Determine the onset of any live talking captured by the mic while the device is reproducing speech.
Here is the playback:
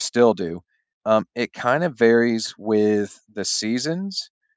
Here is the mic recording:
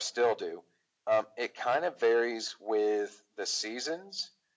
none

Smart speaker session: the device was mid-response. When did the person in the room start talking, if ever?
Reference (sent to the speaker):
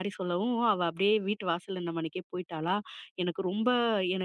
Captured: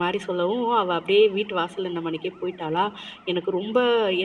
none

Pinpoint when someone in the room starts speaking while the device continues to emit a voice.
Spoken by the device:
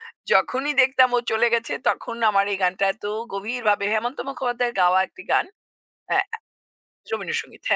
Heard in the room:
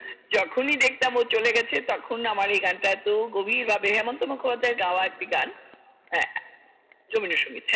none

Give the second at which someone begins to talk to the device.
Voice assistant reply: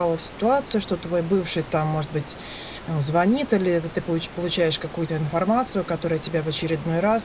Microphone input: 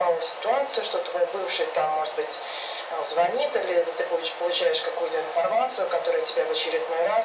none

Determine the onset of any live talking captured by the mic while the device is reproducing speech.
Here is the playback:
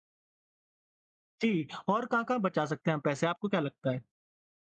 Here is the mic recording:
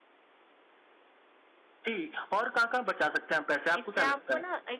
3.8 s

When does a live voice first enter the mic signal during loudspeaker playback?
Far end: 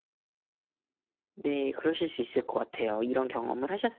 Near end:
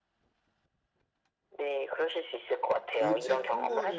2.9 s

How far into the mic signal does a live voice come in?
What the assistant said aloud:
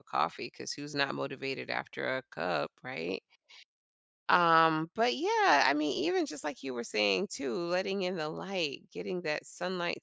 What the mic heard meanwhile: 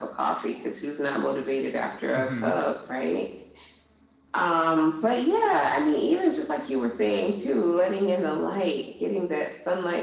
2.1 s

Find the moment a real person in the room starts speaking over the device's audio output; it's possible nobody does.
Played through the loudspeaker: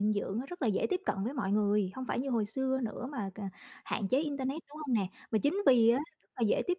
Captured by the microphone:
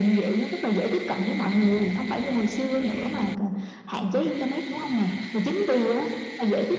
none

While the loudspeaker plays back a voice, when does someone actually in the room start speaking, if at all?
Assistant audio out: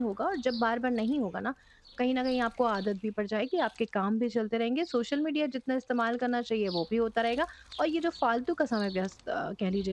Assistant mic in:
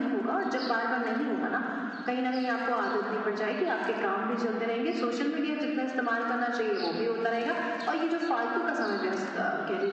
none

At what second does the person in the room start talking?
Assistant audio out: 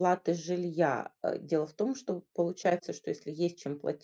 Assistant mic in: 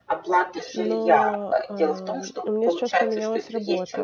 0.7 s

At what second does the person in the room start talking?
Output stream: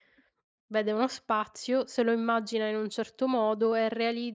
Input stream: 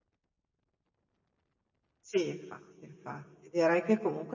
2.0 s

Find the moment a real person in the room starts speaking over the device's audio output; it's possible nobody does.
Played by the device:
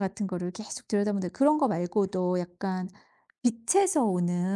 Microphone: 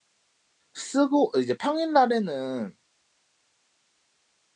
0.7 s

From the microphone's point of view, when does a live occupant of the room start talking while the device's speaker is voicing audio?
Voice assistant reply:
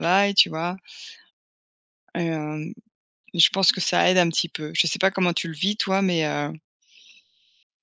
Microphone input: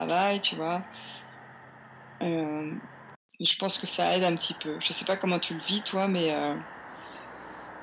none

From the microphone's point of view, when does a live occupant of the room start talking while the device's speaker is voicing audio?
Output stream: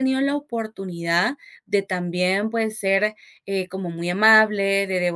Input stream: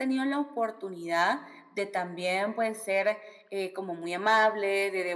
none

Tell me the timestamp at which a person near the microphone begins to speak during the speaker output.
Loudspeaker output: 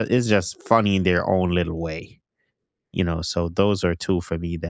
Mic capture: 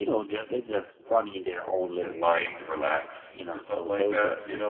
2.0 s

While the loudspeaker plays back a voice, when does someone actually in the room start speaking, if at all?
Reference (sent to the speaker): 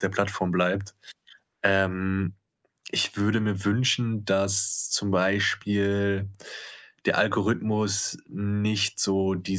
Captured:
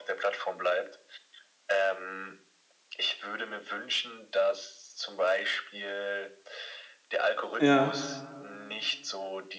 7.6 s

